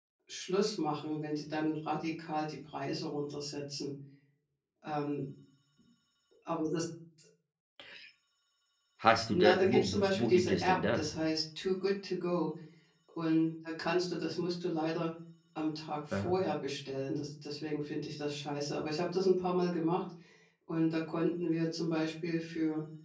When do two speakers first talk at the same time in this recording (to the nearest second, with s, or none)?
9 s